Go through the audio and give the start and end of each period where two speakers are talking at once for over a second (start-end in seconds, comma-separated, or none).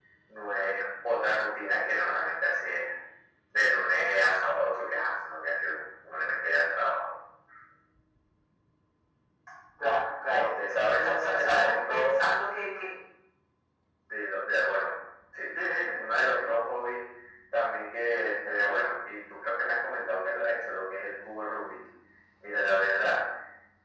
10.9-12.2